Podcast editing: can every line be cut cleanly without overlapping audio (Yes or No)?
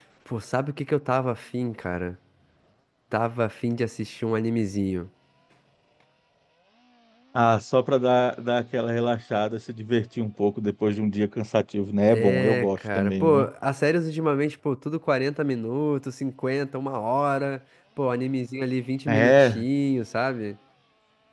No